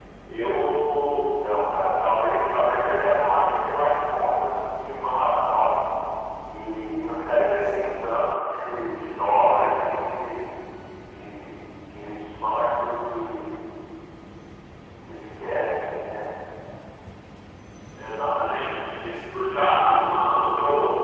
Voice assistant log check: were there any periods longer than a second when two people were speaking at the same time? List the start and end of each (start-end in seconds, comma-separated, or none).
none